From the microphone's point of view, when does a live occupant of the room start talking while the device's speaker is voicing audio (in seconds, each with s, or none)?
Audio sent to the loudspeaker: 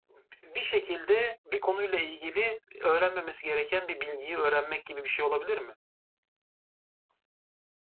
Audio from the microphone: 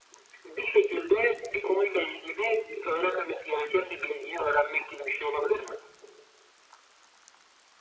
none